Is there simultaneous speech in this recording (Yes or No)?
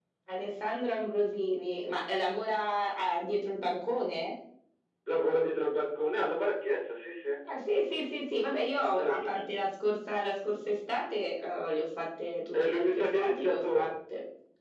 Yes